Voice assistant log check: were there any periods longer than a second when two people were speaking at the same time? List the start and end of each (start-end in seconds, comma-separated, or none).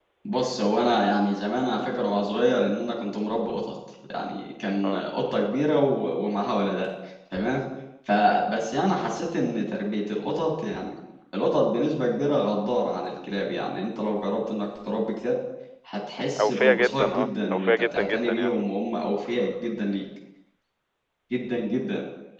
16.4-18.5